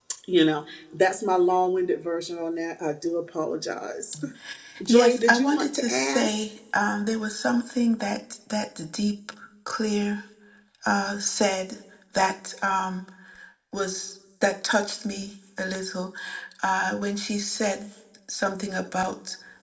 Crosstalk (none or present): present